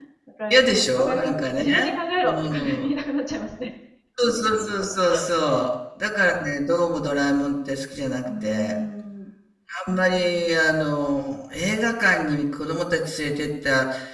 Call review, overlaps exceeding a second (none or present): present